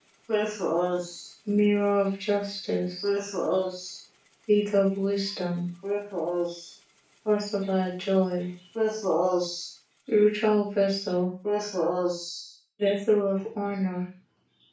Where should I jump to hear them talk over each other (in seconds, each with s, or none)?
none